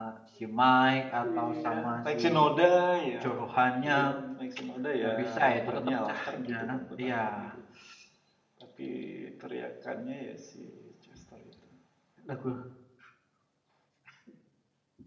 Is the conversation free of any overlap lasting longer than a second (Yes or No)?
No